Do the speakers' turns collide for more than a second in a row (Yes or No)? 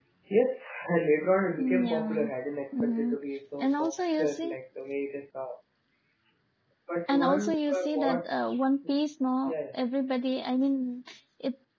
Yes